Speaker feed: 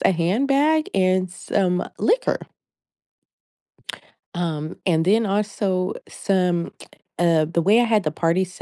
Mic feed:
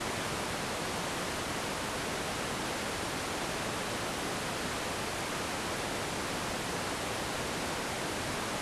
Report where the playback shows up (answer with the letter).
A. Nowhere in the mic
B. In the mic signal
A